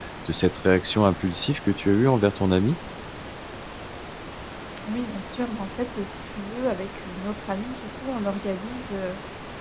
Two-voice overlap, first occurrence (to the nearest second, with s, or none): none